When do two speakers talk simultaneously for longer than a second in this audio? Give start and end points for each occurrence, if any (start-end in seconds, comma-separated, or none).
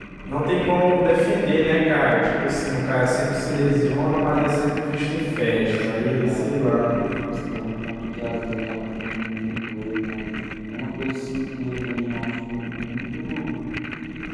5.4-6.9